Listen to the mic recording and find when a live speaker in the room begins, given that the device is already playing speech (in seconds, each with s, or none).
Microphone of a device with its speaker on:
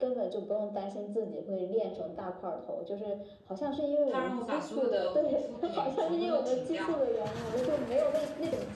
4.1 s